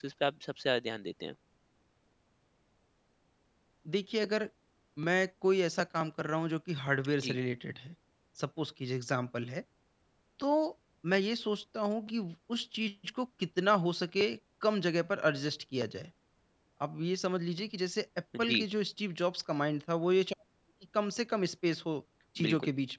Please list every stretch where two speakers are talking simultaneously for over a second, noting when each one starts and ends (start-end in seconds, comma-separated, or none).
none